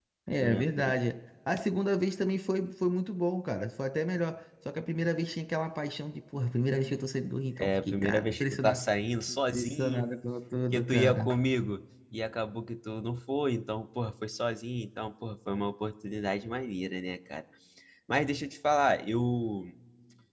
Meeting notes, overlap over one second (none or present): present